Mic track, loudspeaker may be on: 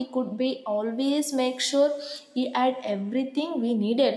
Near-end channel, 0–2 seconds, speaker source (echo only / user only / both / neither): echo only